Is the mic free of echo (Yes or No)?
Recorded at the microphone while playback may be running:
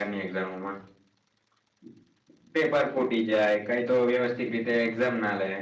Yes